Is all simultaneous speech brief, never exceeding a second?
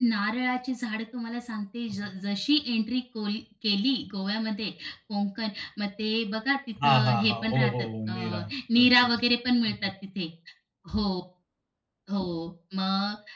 No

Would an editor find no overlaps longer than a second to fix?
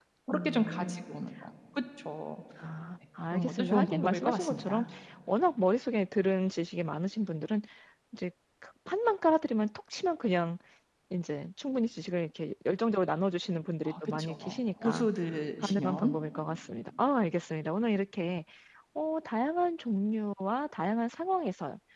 No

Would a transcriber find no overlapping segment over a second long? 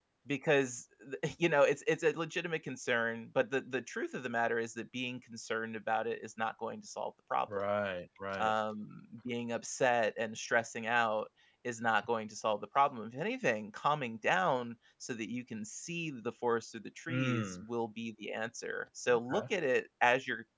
Yes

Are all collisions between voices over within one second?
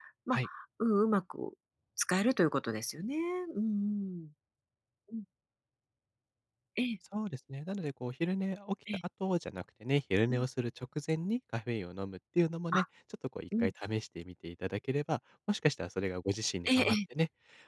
Yes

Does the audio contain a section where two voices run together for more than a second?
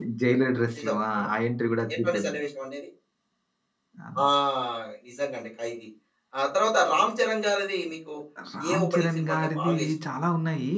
Yes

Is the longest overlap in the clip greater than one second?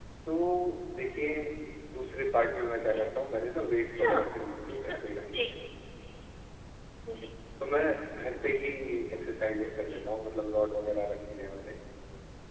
No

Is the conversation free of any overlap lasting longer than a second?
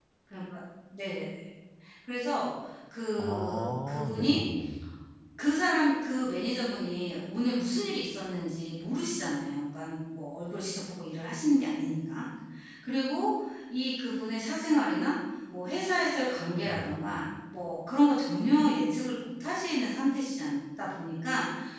No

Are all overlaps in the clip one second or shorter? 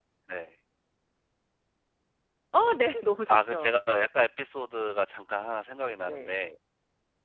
Yes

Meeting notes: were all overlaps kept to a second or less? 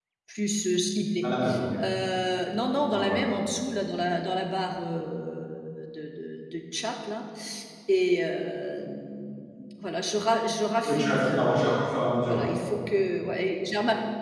No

